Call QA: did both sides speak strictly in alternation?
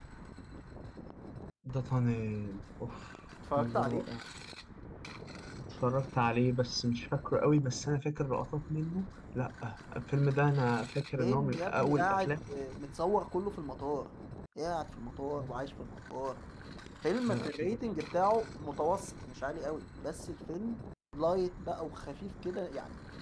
No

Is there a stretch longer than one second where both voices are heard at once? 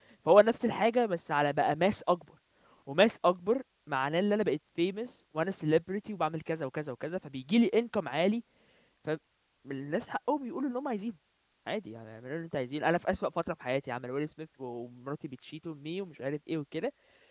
No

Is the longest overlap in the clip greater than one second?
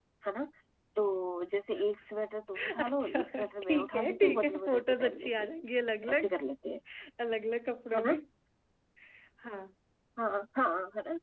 Yes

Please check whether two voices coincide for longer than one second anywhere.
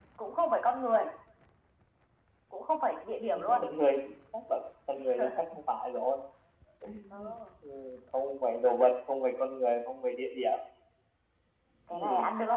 No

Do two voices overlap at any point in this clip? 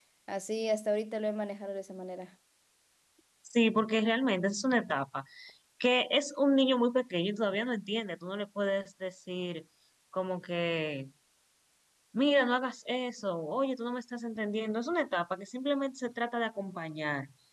No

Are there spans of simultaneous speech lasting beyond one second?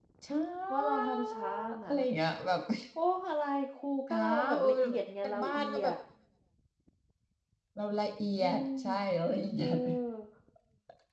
Yes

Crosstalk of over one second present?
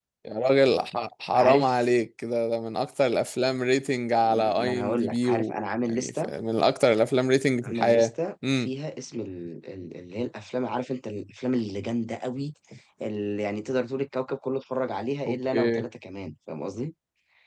Yes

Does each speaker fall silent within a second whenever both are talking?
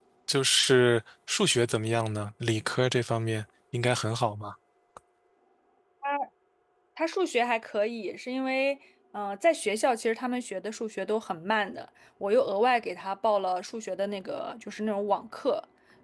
Yes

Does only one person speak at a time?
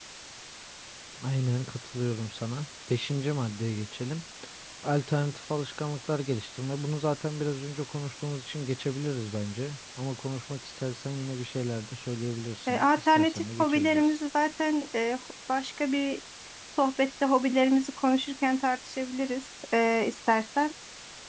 No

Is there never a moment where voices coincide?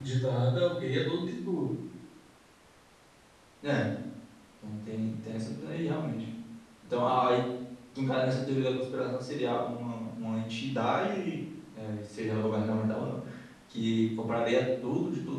Yes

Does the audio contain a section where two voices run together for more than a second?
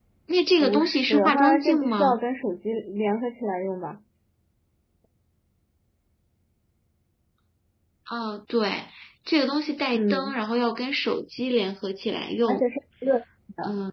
Yes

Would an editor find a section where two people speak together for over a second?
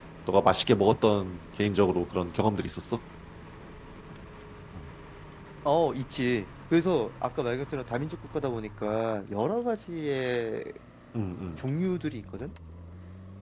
No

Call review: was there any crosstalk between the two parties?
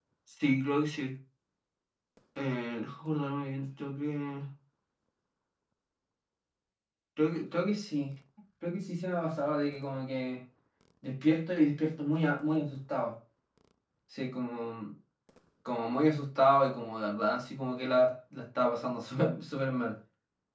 No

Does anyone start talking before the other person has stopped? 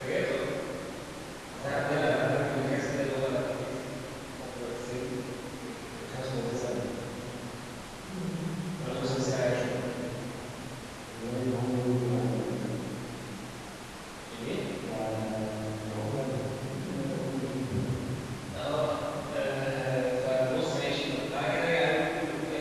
Yes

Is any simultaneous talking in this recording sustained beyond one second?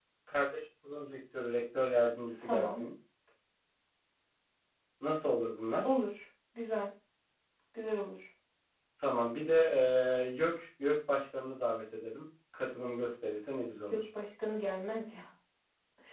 No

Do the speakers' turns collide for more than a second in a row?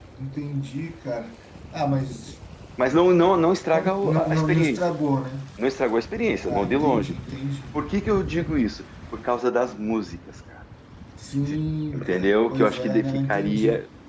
Yes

